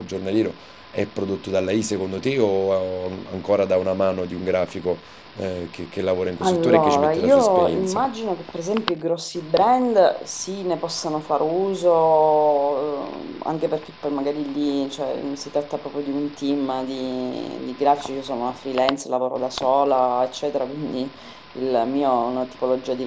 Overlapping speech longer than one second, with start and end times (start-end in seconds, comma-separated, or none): 6.4-8.0